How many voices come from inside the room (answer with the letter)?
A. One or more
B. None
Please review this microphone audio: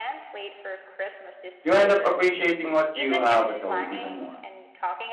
A